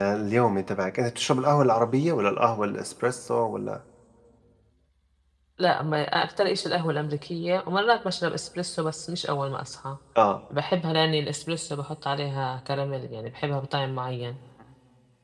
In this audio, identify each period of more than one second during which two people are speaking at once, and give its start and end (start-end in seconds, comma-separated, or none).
none